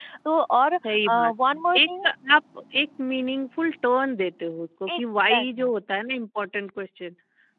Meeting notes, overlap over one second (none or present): present